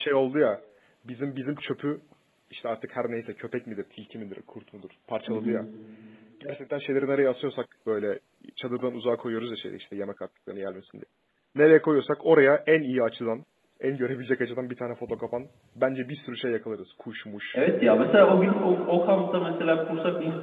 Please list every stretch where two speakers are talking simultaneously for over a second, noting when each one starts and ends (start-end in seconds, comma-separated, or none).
none